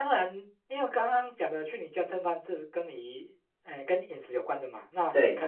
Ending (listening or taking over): listening